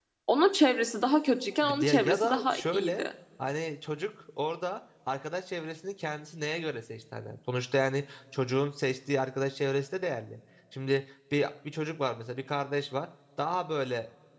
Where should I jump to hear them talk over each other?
1.6 s

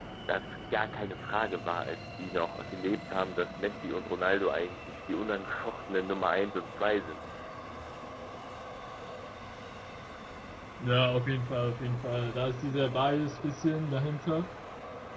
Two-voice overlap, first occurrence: none

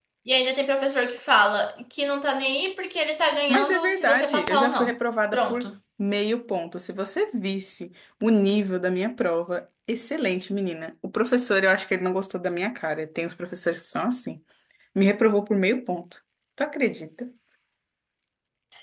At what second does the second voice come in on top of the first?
3.5 s

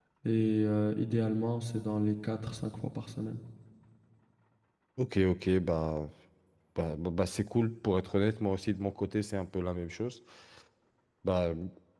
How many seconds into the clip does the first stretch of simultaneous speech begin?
none

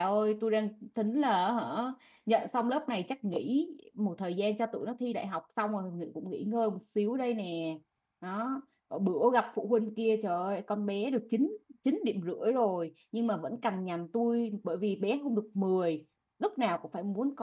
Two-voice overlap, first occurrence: none

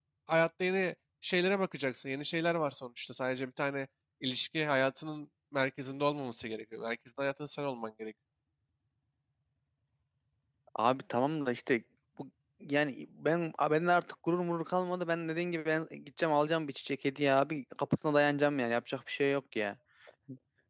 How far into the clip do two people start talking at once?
none

